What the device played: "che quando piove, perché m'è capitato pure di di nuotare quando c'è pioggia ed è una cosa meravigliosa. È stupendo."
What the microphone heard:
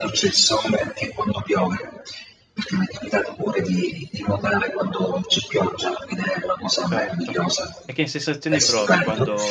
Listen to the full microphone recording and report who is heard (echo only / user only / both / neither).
both